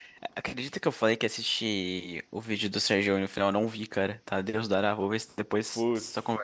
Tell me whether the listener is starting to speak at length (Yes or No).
Yes